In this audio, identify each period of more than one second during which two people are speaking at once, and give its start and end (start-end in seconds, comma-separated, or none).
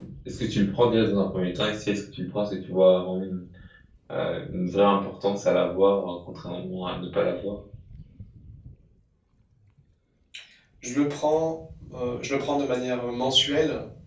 none